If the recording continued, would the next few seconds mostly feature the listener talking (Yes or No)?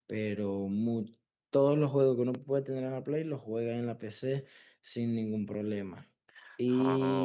No